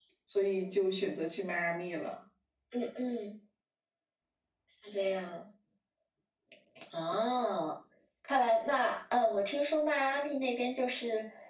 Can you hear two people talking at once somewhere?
No

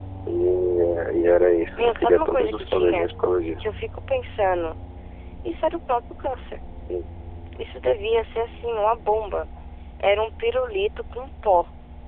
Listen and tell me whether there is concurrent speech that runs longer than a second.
Yes, from 1.8 s

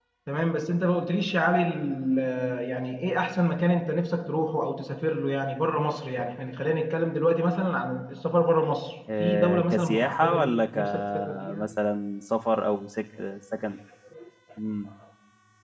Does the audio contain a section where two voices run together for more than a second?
Yes, from 9.1 s

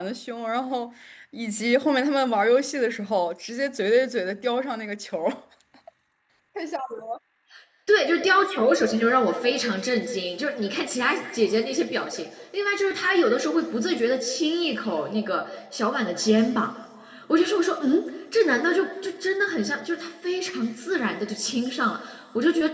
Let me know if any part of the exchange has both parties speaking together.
No

